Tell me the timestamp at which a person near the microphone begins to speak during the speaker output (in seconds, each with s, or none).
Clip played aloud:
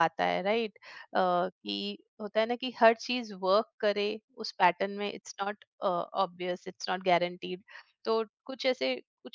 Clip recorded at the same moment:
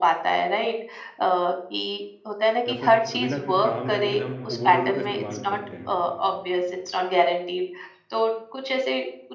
2.7 s